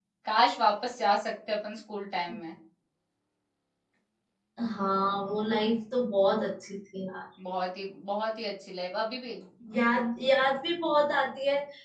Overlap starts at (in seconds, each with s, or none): none